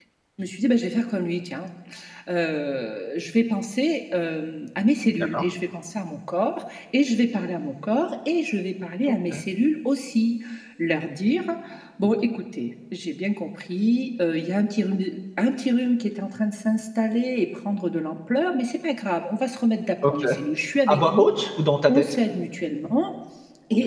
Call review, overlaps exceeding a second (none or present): none